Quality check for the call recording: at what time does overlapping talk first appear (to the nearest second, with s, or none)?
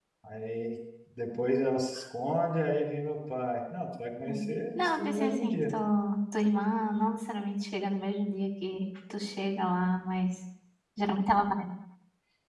4 s